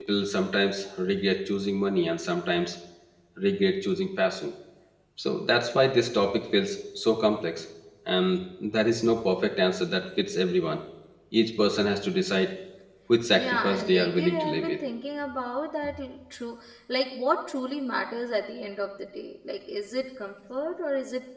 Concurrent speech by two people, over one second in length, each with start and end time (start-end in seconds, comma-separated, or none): 13.3-14.8